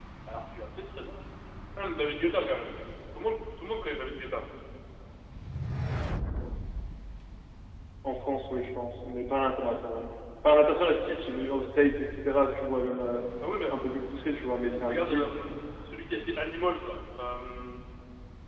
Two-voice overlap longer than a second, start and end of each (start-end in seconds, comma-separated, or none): none